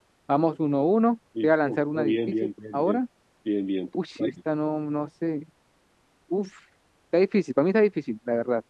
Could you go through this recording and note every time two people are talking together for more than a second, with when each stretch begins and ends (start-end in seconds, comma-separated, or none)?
1.4-3.0